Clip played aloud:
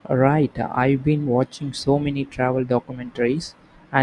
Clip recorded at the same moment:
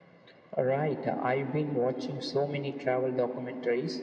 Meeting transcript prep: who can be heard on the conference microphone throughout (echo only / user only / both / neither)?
echo only